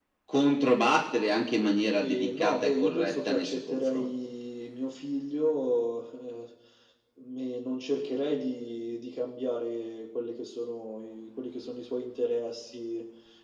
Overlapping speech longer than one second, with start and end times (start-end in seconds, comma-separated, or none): 2.0-4.1